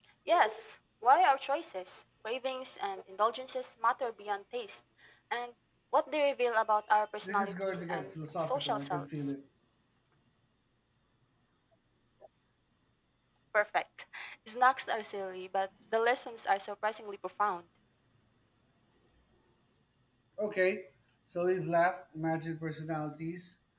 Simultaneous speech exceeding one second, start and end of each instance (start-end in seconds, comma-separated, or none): 7.2-9.3